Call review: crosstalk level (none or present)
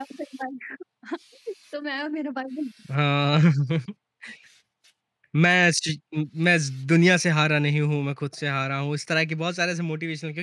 none